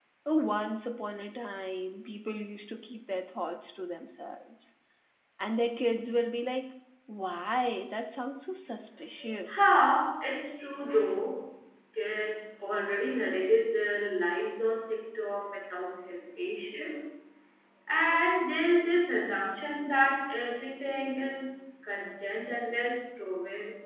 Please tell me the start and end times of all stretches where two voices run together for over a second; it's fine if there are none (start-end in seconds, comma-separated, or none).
none